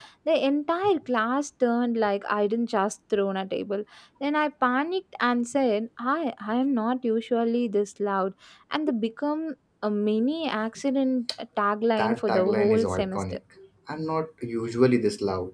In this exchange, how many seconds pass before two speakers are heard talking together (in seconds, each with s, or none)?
12.0 s